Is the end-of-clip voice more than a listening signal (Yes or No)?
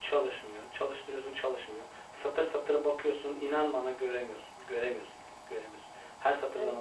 Yes